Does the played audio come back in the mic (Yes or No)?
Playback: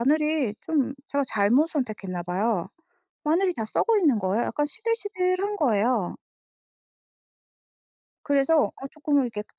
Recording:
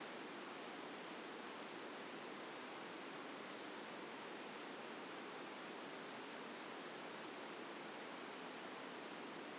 No